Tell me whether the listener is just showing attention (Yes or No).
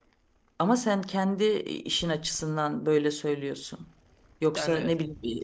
Yes